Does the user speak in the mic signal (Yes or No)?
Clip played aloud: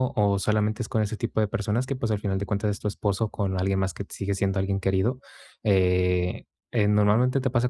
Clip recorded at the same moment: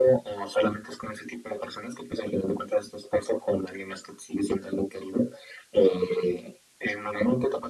No